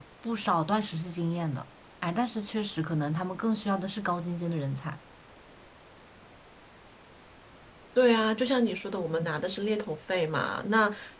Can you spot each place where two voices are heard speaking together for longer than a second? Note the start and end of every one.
none

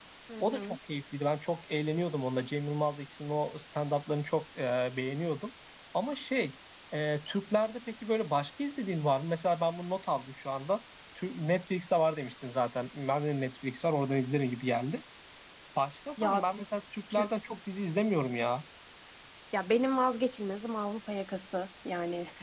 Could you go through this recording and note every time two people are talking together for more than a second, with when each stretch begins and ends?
none

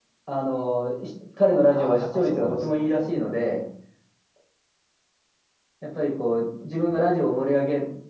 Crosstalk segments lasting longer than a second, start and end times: 1.6-3.0

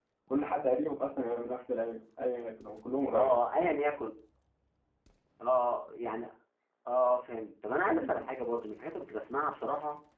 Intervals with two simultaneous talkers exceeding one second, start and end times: none

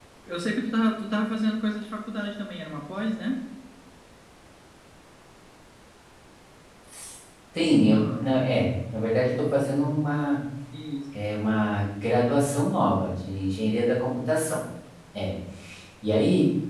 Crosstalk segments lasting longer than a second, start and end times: none

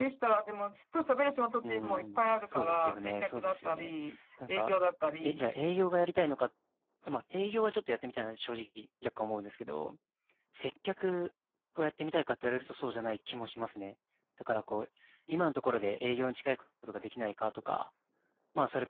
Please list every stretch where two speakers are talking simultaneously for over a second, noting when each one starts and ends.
1.6-3.9

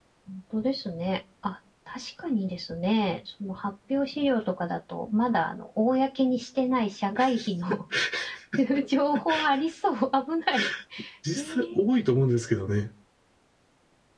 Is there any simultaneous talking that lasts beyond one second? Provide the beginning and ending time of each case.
none

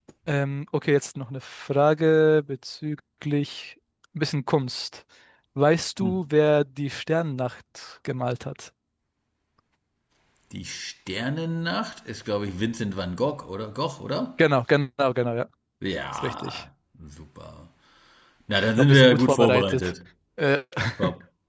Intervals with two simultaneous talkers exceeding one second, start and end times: 18.6-19.9

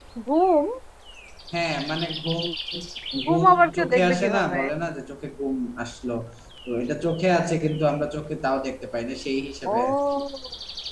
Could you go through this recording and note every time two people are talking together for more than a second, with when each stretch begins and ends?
3.3-4.6

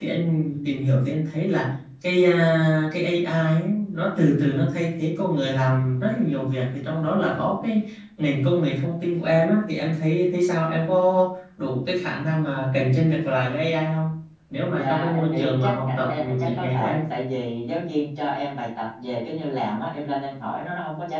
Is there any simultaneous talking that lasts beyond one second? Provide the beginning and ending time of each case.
14.7-17.0

